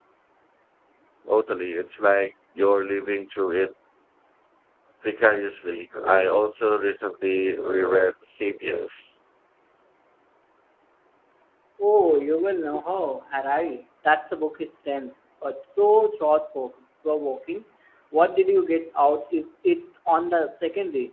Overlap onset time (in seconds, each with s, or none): none